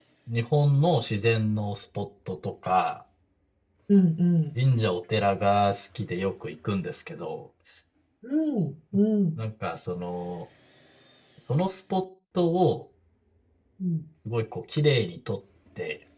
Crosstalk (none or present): none